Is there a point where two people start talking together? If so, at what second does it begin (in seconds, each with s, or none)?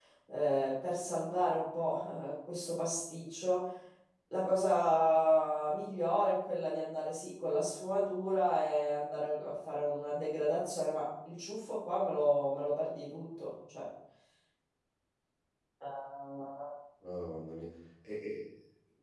none